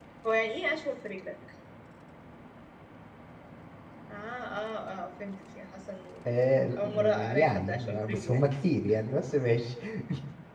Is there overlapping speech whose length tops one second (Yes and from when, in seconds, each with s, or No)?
Yes, from 6.8 s